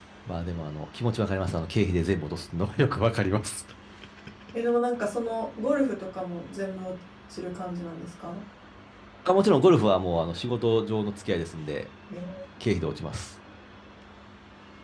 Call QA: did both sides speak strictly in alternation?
Yes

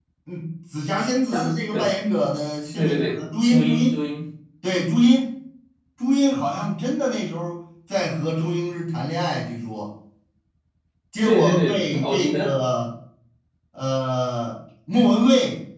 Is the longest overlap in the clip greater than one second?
Yes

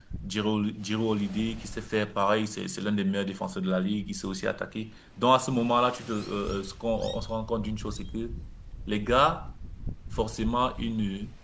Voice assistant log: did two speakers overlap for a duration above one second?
No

